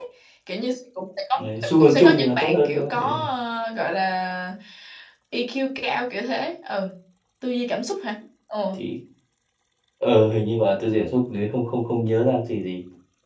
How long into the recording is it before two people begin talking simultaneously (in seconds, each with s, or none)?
1.8 s